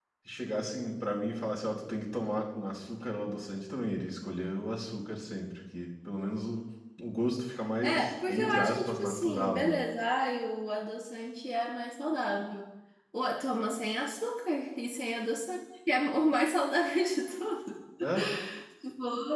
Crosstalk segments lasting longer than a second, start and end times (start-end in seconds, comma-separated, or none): 7.8-9.8